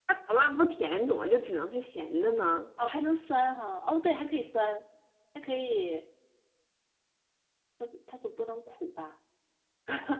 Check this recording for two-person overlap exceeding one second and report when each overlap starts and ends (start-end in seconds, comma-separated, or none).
none